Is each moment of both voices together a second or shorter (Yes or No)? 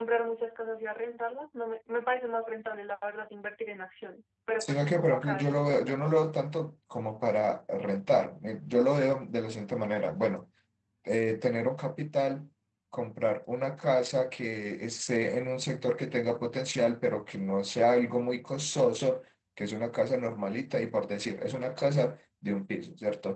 No